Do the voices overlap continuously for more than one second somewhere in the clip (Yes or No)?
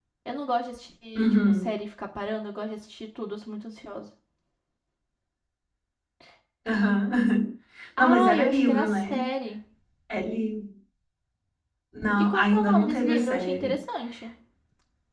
Yes